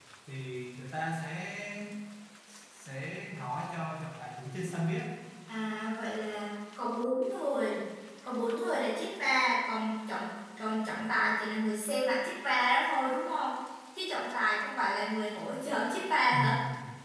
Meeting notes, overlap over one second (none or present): none